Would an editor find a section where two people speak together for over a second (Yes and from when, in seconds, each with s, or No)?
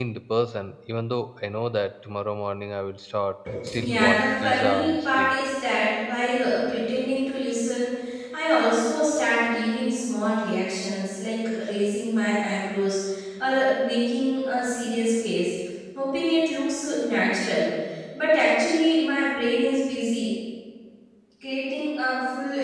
Yes, from 3.7 s